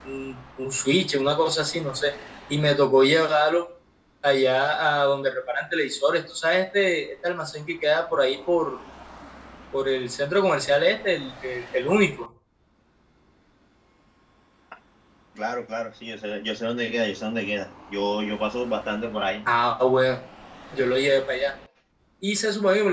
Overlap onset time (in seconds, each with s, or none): none